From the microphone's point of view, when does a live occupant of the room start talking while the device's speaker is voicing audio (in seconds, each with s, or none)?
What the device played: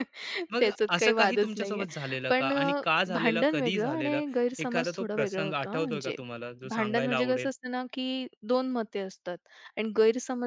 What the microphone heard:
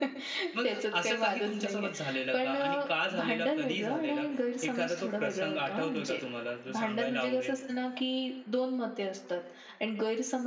none